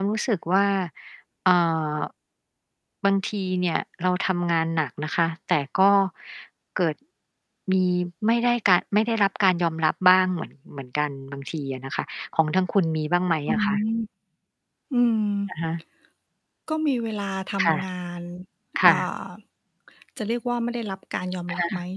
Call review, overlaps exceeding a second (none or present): none